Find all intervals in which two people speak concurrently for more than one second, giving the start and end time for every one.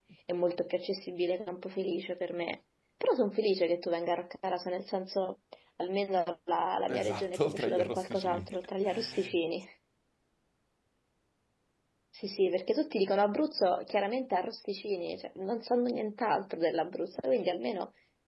6.9-8.5

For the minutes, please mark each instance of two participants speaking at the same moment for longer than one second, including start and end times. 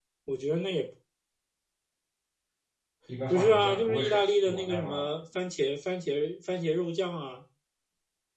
3.3-5.0

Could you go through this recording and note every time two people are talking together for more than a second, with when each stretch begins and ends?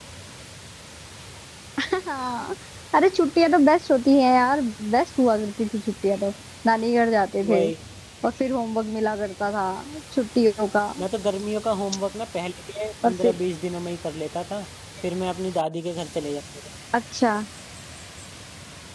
none

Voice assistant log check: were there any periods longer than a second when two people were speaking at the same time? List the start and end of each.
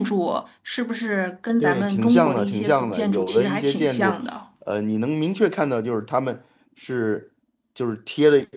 1.6-4.2

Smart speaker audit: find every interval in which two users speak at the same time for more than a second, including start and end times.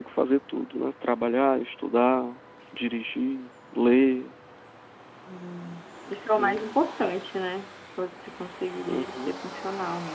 none

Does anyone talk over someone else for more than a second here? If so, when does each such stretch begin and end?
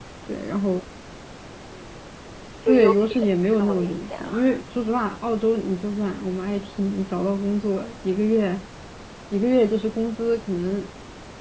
2.7-4.6

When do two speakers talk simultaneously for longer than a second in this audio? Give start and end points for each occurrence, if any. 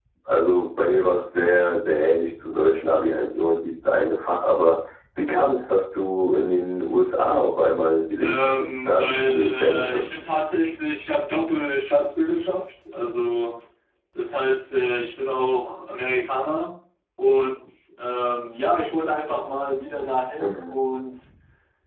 8.2-10.0

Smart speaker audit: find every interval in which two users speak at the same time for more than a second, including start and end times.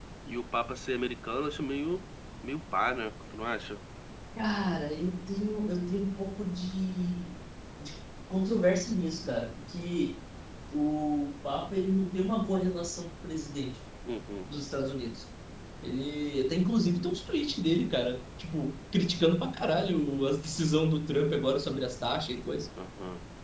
none

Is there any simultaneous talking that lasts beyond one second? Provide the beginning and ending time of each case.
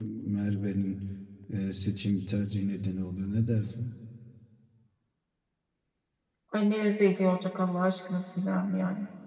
none

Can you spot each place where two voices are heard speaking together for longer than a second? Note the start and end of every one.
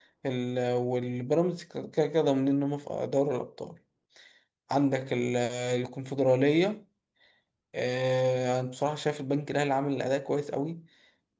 none

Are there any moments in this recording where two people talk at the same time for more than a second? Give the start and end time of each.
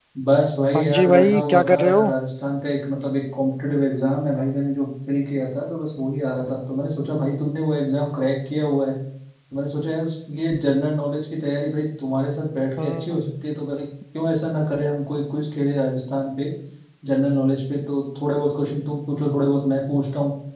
0.8-2.1

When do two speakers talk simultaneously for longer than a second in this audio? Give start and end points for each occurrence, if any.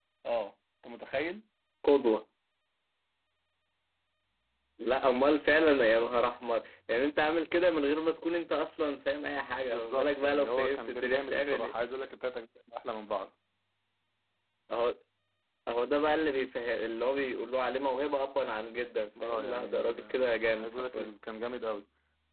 9.7-11.7, 19.2-21.1

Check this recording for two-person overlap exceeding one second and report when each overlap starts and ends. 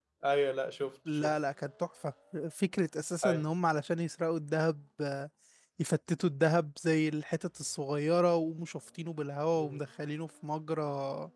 none

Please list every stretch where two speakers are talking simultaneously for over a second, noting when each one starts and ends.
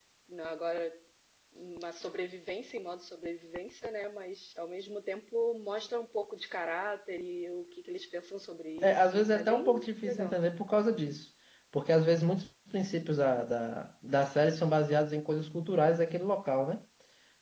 8.8-10.4

